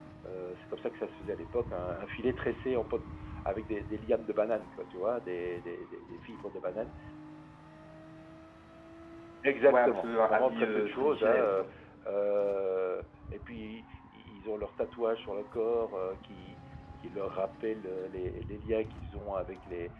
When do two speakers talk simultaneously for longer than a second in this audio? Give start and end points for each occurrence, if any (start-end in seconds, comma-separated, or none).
9.7-11.6